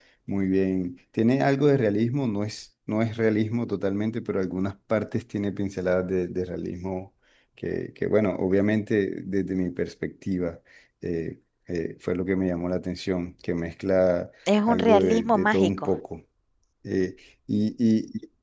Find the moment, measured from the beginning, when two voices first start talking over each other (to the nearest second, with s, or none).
14 s